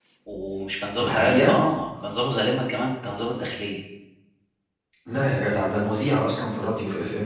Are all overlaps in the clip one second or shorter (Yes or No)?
Yes